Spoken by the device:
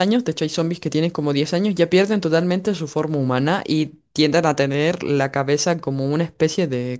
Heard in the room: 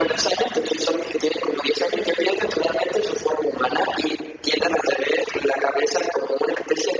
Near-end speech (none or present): none